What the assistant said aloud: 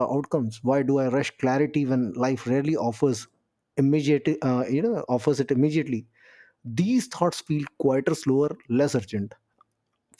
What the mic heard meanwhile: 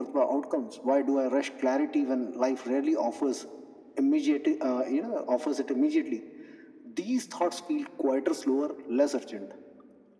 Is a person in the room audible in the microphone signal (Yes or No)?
No